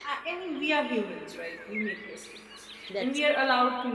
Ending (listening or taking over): listening